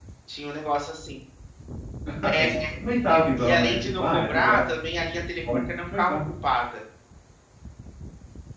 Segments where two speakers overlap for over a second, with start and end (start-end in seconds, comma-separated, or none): 3.4-4.6